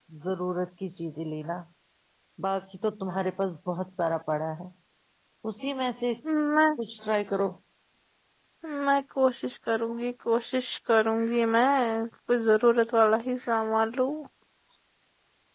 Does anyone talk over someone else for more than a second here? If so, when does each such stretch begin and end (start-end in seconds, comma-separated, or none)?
none